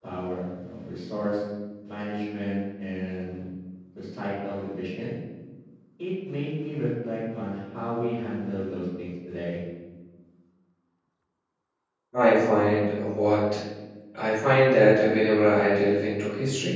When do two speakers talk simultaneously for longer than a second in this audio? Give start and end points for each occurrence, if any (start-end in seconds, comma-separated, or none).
none